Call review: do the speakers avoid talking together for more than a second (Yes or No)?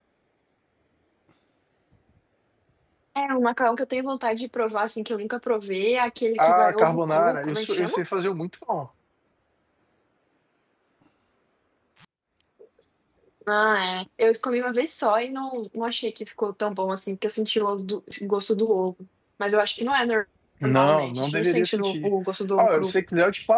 No